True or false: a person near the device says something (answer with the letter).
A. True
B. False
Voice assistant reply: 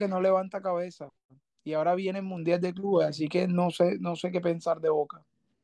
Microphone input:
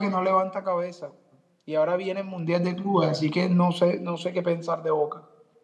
B